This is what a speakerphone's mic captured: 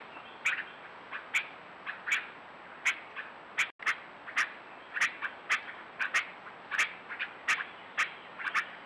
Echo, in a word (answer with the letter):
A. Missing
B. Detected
A